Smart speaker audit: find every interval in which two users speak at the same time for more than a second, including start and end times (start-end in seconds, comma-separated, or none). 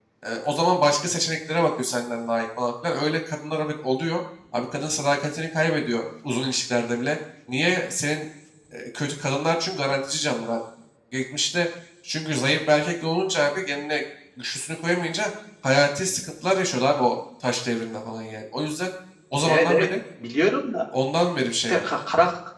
none